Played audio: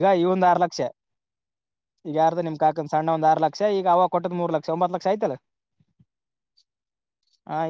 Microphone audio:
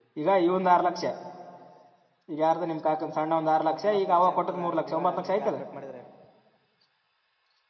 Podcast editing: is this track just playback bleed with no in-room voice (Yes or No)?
No